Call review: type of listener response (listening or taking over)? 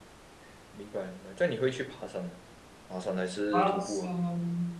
taking over